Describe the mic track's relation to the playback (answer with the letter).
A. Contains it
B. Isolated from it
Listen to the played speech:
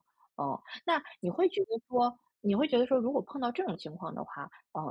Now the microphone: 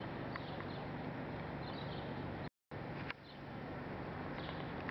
B